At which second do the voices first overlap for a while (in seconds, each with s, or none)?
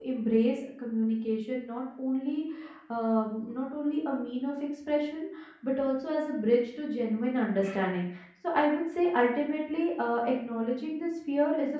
none